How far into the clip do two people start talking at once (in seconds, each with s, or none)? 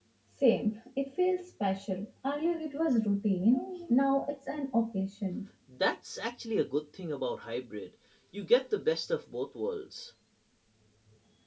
none